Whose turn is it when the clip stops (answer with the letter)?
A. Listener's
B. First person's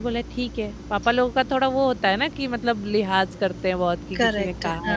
A